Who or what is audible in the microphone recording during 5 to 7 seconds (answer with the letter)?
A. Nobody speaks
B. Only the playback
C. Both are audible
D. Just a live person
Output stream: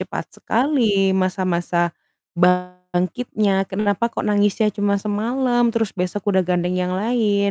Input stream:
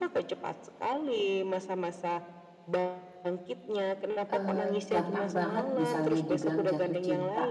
C